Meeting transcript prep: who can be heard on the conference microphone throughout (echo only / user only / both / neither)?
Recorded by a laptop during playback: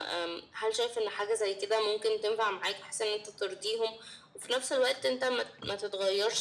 echo only